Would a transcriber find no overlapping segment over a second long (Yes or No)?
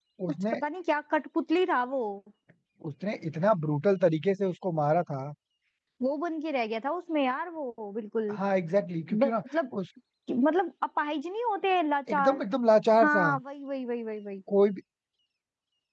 Yes